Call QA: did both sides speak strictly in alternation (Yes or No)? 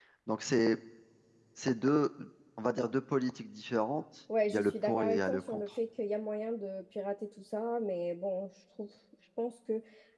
No